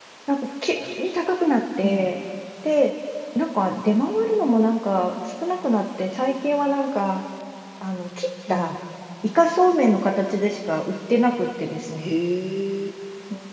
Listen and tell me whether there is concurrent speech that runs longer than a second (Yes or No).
No